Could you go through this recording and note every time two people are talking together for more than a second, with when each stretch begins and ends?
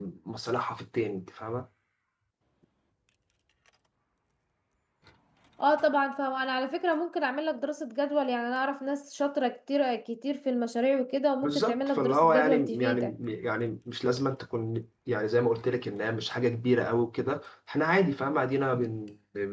11.4-13.1

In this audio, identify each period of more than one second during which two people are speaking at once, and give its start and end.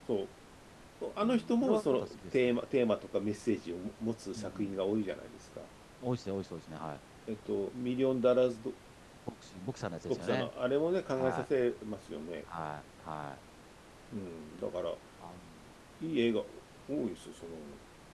1.2-2.6

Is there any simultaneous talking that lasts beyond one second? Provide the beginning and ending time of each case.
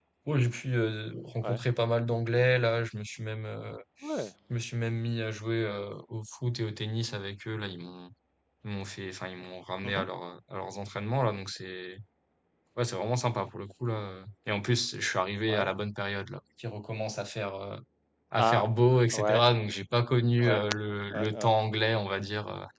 none

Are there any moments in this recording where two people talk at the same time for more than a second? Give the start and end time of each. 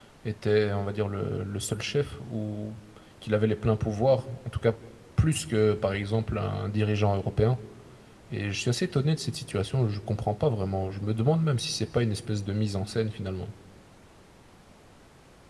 none

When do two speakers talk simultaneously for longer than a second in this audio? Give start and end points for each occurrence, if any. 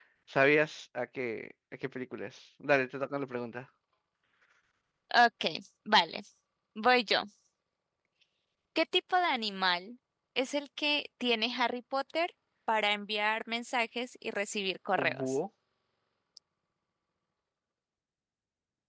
none

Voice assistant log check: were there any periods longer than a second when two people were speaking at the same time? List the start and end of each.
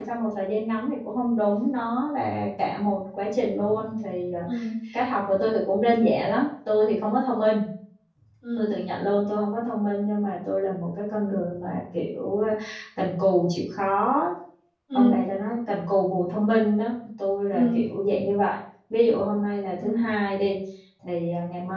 none

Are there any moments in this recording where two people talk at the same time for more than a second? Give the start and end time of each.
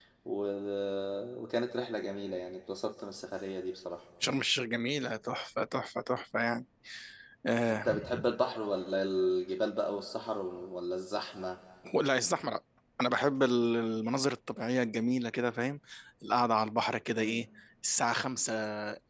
none

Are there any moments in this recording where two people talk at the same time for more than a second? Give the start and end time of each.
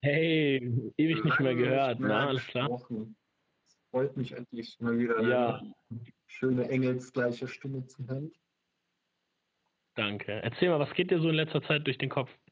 1.1-2.7

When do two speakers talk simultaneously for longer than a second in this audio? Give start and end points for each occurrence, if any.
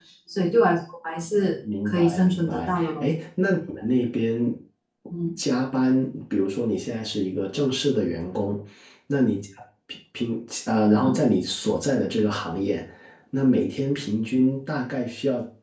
1.9-3.0

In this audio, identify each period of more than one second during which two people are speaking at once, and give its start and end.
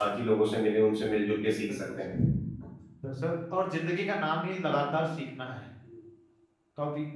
none

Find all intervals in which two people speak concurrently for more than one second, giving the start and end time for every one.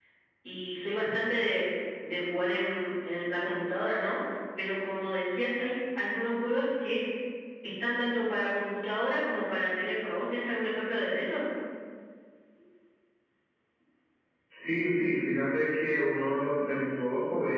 none

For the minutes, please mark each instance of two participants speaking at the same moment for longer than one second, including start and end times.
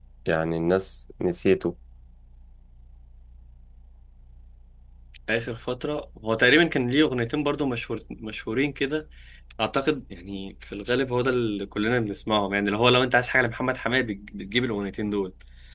none

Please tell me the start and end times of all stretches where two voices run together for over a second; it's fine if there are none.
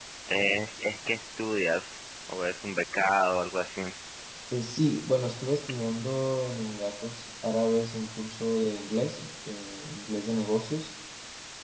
none

